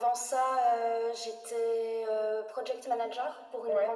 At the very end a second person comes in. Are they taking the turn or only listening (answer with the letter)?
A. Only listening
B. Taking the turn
A